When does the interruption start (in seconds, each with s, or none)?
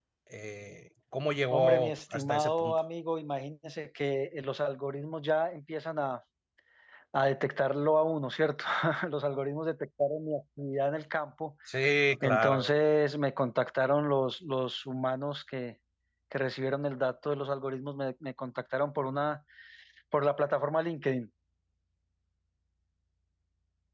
1.5 s